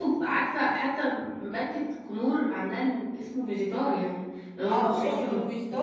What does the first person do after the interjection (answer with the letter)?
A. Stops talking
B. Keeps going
A